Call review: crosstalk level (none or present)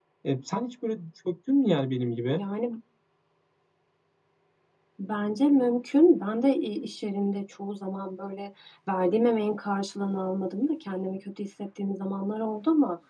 none